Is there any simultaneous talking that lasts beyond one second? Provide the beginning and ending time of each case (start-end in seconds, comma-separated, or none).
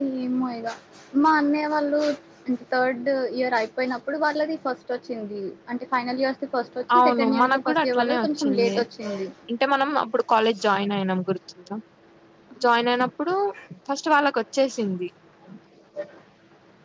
7.0-8.8